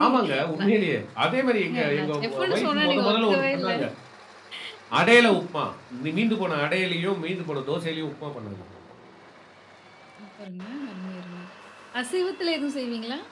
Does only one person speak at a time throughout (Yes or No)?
No